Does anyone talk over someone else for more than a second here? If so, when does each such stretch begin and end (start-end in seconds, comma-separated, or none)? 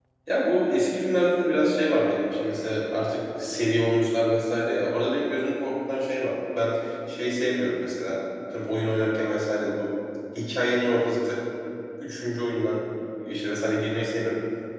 none